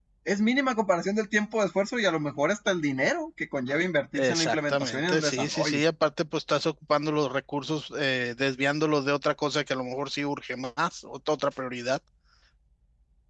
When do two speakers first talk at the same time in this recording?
4.1 s

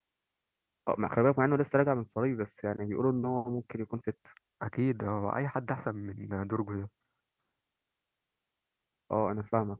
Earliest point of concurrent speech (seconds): none

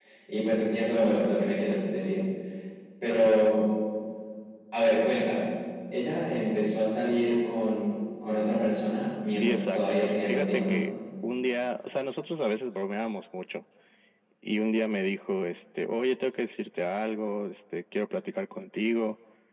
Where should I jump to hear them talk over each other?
9.4 s

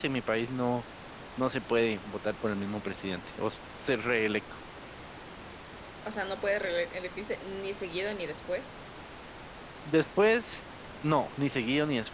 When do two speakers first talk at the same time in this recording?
none

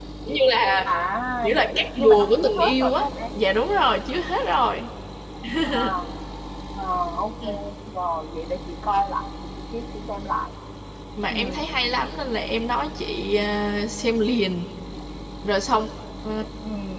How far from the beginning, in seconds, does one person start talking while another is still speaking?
1.4 s

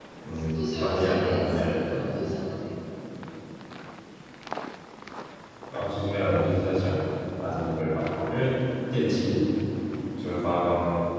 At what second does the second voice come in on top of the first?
0.5 s

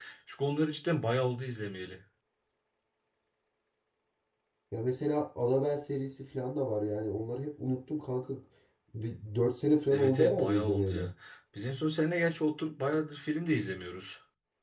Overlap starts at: 9.9 s

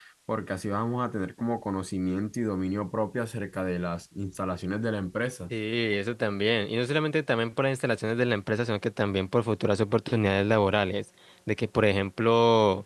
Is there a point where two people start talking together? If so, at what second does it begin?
none

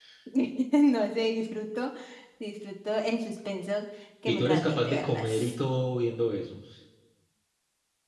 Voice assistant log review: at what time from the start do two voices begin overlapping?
4.3 s

